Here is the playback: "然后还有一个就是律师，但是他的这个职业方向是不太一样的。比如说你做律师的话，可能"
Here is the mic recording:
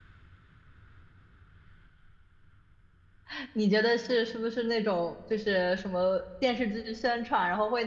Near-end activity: present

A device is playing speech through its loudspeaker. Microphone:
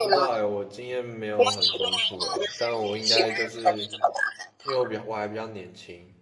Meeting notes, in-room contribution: present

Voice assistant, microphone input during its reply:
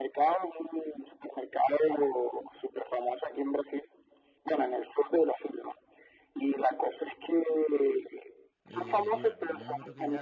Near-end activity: present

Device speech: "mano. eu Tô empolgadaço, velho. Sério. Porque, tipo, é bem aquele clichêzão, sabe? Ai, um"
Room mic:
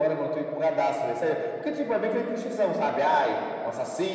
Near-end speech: none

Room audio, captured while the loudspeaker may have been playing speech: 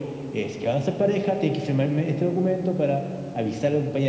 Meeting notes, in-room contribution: none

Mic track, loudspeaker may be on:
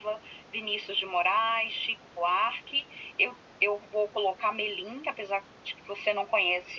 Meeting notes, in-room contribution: none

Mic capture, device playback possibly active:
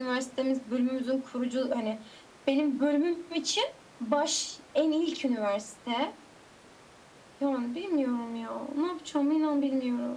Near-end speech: none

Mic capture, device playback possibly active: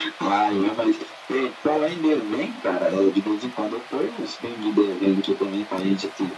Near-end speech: none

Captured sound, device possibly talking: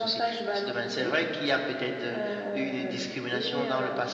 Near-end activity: none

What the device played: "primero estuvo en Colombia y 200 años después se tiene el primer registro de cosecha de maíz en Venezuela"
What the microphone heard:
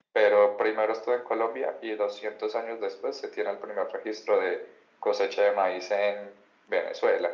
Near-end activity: none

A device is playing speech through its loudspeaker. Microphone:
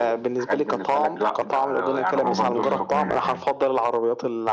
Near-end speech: present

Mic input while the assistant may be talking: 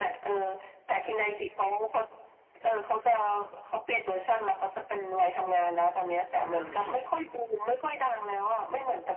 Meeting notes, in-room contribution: present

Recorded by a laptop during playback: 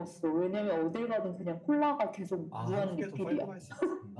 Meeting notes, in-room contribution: present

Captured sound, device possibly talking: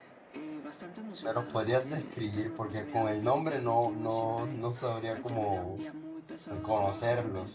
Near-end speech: present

